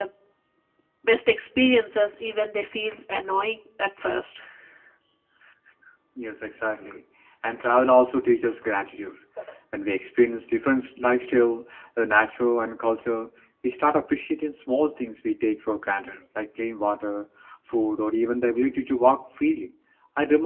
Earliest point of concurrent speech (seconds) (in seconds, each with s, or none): none